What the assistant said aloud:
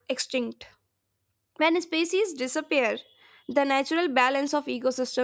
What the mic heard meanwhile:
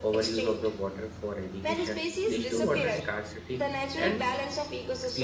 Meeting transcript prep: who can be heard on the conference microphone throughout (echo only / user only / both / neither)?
both